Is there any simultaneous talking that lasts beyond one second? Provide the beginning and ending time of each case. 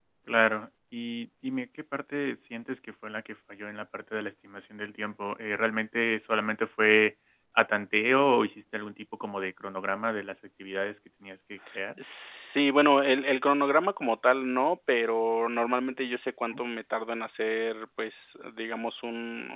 none

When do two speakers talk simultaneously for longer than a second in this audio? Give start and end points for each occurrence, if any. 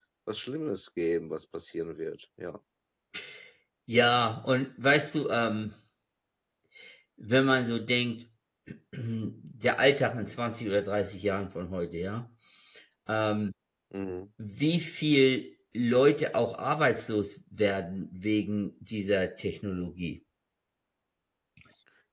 none

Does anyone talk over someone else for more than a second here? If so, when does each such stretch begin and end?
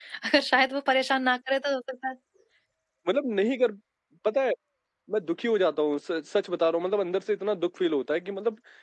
none

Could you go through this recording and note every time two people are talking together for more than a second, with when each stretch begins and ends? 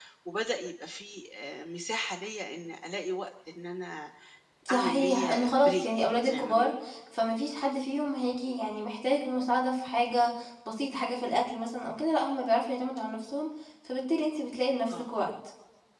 4.7-6.7

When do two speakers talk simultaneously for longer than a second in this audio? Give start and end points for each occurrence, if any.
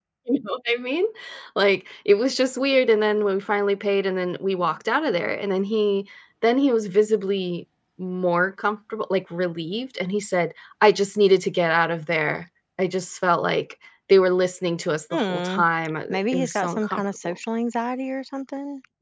16.1-17.3

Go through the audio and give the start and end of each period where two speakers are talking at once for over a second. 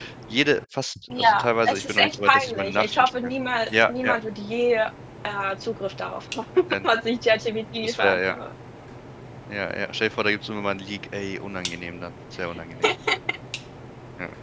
1.2-3.2

